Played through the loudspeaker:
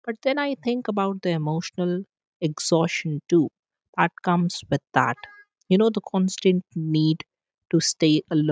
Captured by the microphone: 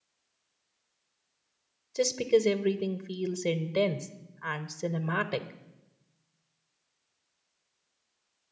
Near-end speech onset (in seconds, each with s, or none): 2.0 s